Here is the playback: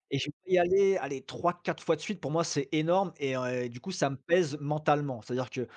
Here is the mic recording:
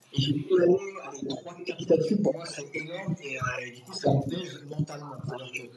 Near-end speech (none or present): none